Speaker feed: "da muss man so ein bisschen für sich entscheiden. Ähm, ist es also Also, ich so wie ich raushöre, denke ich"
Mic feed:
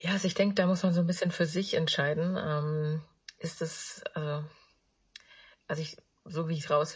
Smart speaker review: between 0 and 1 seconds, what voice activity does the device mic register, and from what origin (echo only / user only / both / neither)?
echo only